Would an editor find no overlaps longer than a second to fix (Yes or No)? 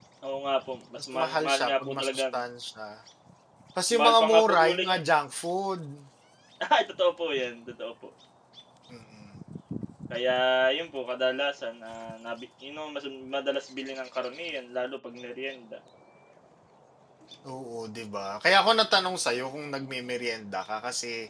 No